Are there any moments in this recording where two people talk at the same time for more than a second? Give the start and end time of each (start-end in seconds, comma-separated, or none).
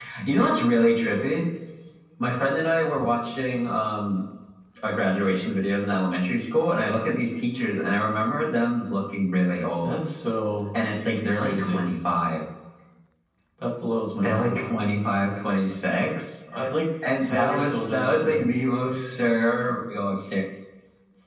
17.2-18.5